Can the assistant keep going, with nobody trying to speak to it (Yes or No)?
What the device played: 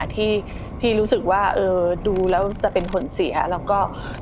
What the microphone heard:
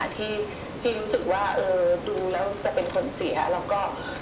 Yes